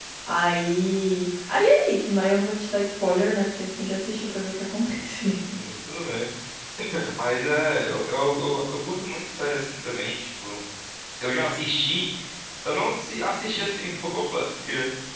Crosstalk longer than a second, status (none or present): none